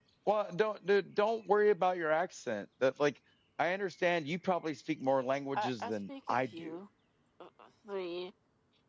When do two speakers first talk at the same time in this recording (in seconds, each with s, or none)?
5.5 s